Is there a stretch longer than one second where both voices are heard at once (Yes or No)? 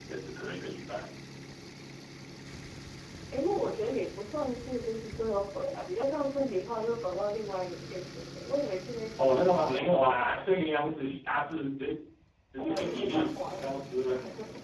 Yes